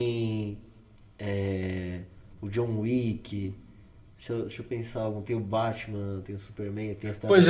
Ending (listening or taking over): taking over